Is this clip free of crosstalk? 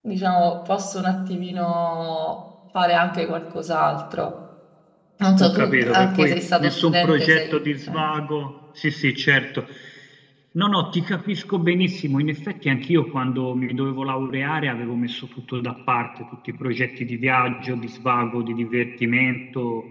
No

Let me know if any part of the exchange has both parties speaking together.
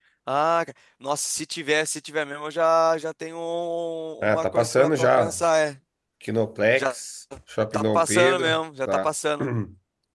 Yes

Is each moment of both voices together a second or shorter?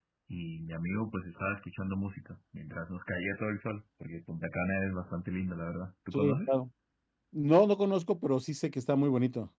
Yes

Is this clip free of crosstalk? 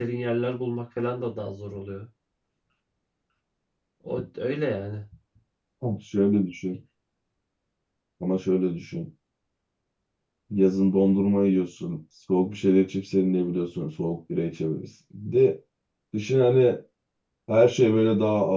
Yes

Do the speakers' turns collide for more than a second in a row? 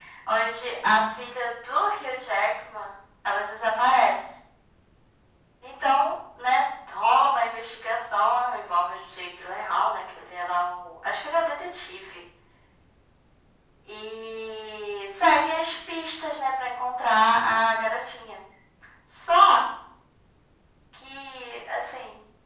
No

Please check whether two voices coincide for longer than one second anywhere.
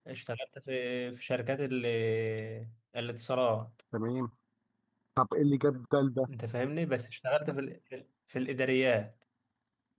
No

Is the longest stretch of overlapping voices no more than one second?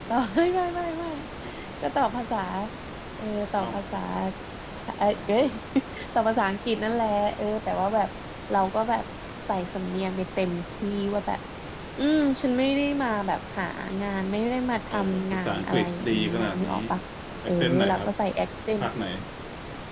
No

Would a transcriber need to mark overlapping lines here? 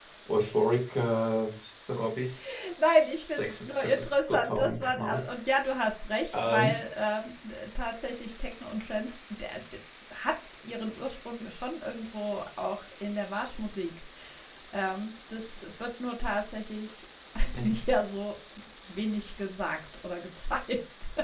Yes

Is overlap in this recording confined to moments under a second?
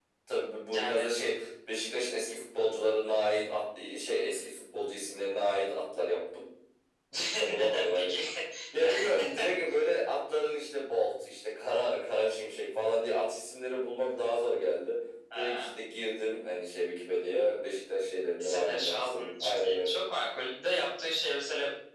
No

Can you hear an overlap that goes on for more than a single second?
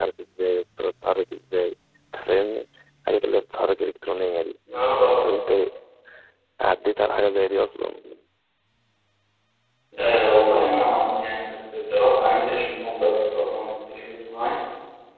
No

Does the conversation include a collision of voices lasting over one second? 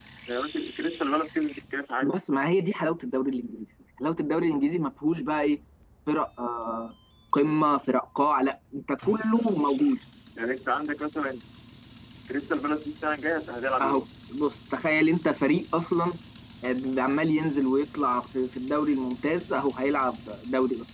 No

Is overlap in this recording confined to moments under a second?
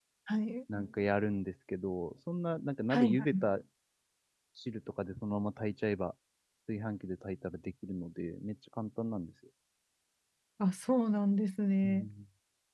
Yes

